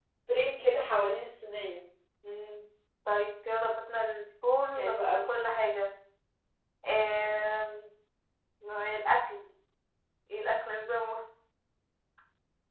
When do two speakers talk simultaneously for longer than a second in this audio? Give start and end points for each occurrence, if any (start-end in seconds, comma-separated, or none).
none